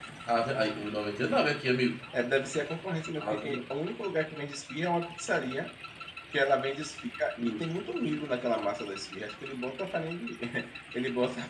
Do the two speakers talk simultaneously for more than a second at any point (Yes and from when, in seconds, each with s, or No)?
No